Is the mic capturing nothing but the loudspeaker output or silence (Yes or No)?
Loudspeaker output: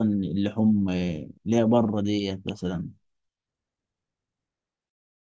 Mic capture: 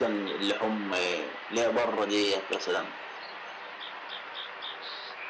Yes